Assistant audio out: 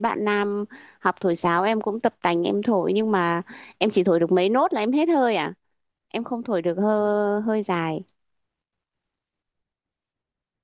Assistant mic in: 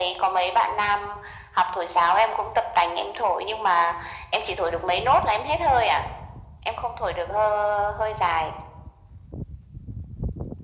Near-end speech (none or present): none